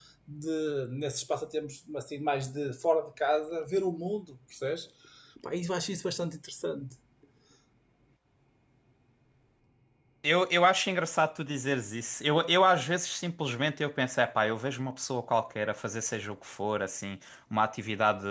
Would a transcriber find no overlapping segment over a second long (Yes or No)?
Yes